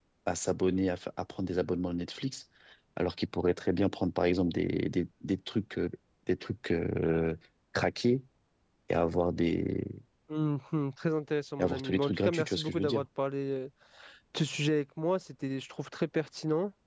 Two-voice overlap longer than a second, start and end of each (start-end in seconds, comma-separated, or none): 11.6-13.1